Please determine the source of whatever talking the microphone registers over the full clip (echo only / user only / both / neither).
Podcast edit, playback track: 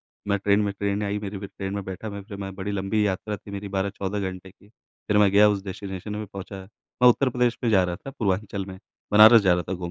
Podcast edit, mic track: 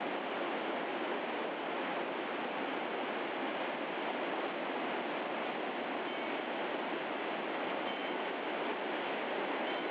neither